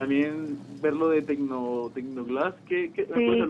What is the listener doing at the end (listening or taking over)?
taking over